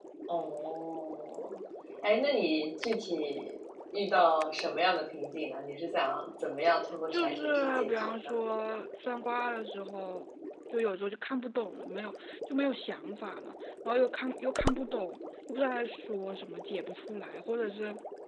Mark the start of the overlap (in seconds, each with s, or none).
7.1 s